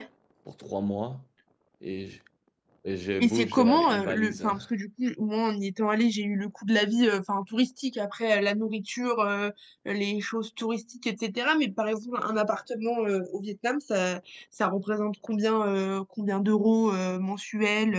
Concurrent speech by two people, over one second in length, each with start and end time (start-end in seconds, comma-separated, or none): 3.2-4.5